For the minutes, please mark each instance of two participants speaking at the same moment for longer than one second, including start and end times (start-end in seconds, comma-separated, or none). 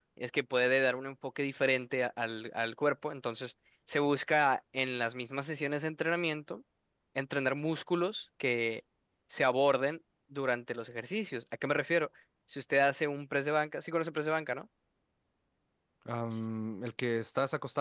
none